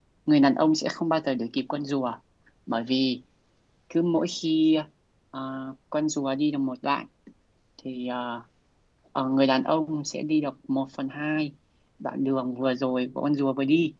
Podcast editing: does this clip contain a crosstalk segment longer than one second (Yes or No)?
No